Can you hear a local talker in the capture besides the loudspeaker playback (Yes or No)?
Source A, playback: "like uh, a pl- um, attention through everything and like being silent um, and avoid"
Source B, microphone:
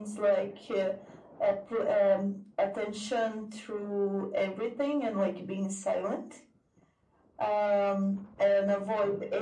No